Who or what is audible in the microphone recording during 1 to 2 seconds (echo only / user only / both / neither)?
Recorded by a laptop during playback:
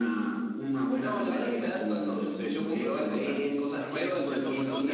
echo only